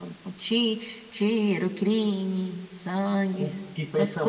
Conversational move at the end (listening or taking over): taking over